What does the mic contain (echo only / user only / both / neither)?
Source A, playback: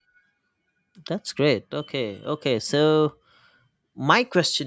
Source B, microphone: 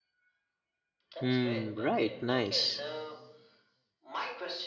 both